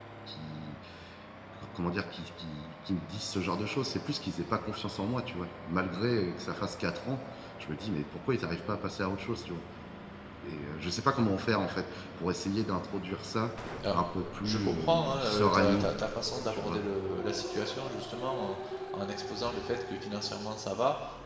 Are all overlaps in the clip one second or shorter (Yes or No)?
No